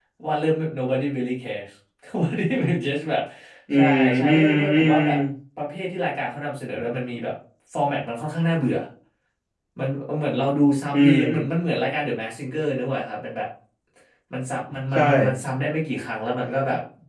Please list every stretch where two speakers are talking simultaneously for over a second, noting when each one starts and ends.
3.7-5.0

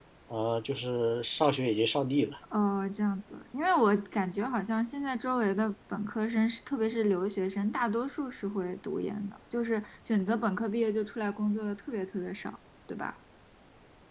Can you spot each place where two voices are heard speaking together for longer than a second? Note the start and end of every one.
none

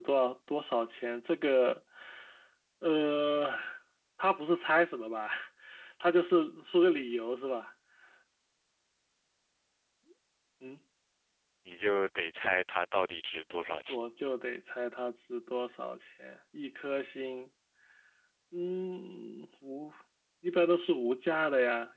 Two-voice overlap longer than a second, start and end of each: none

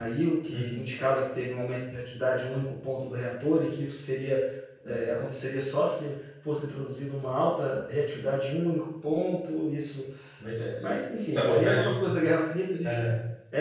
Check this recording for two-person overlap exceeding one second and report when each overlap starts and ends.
10.6-11.9

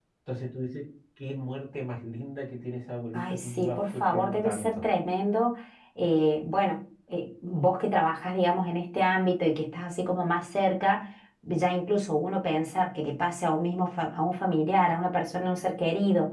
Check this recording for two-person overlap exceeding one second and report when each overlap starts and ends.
3.1-4.8

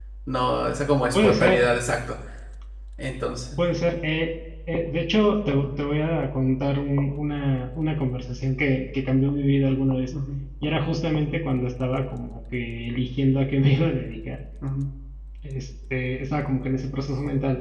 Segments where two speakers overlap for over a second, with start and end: none

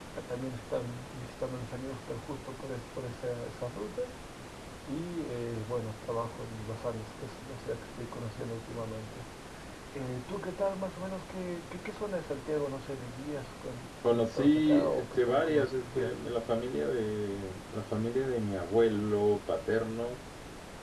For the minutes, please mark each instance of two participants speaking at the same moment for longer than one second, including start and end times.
14.1-16.1

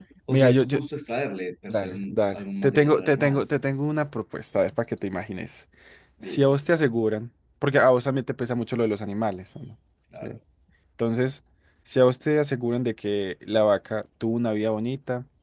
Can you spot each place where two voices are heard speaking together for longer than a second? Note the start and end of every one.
1.7-3.4

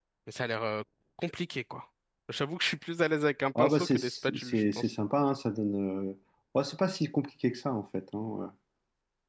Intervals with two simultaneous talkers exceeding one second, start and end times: 3.5-4.9

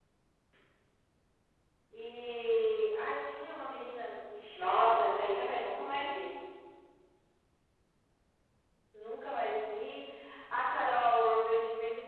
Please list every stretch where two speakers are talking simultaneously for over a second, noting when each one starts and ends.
4.5-5.9

